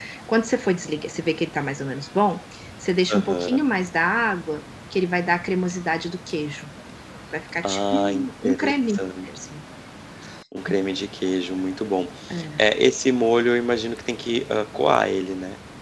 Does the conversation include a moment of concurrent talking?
Yes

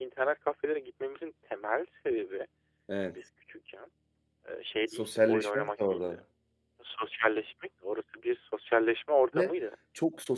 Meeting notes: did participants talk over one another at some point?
Yes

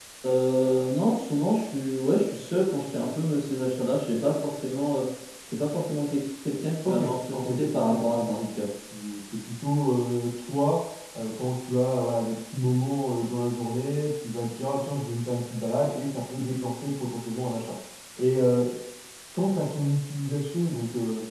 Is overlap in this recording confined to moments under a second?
No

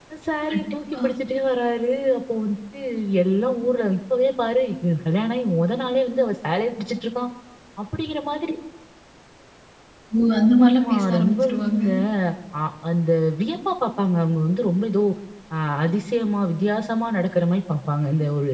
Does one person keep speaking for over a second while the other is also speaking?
Yes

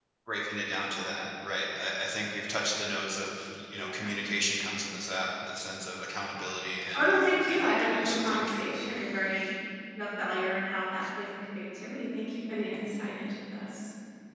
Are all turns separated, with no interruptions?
No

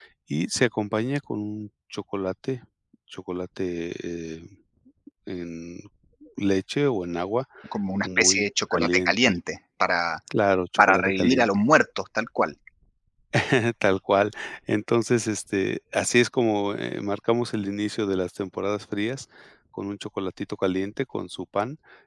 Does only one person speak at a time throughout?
No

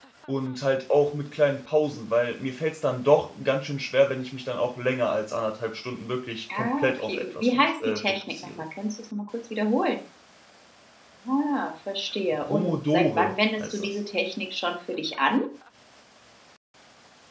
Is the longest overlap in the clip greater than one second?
Yes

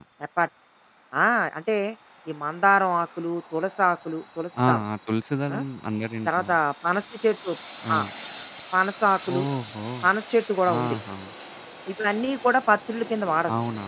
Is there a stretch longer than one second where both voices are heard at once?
No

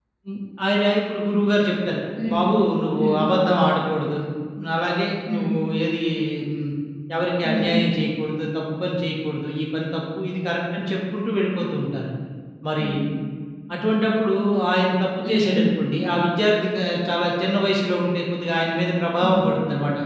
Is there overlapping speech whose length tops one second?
No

